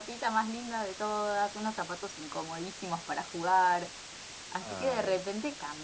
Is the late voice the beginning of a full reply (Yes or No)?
No